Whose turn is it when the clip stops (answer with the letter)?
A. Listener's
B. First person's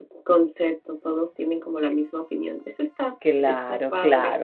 A